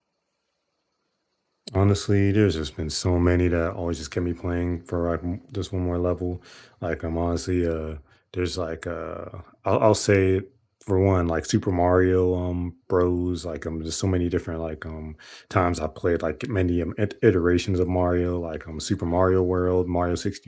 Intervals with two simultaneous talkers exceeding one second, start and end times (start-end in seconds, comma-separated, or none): none